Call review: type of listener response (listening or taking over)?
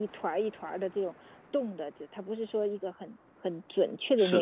listening